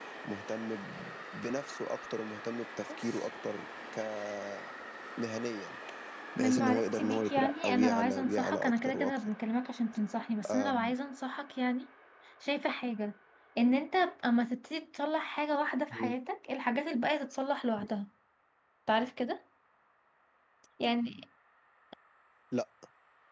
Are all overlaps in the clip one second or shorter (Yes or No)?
No